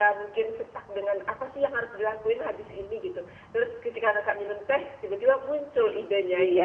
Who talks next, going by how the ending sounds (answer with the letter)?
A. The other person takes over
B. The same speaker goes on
A